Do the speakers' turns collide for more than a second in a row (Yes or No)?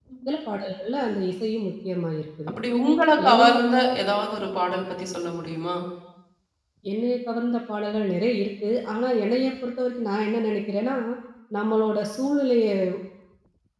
No